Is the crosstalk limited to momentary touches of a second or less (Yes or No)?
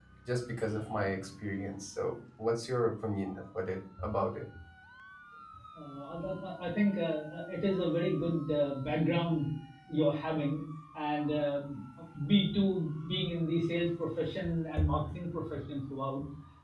Yes